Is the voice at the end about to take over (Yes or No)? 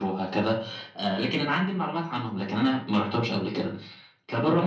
No